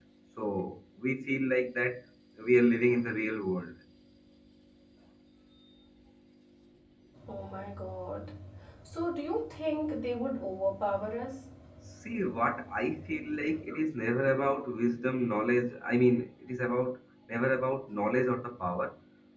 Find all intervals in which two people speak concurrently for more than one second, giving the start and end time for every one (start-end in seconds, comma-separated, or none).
none